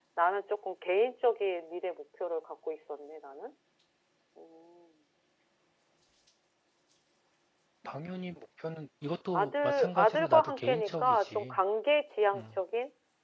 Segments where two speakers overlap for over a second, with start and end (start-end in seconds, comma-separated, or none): 9.3-11.6